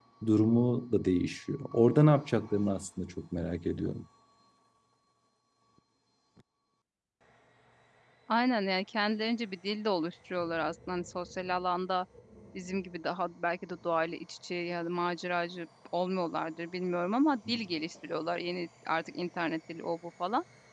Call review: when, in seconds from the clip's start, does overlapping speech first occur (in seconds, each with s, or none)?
none